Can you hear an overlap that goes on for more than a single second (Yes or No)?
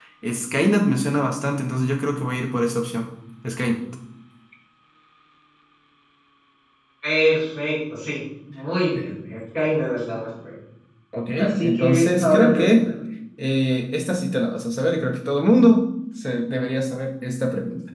Yes